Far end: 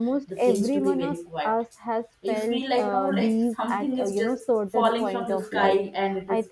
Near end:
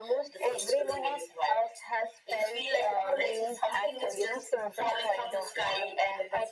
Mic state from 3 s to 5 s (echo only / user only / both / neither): echo only